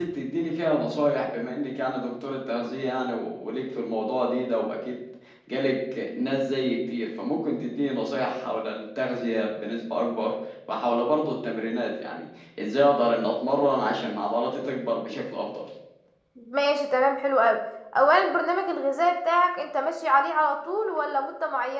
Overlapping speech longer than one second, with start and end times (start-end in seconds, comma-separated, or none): none